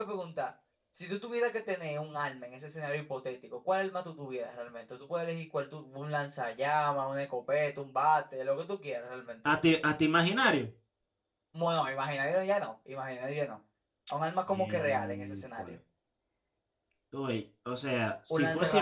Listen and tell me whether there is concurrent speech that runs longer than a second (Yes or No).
Yes